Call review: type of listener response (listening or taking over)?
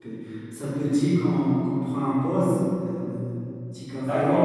taking over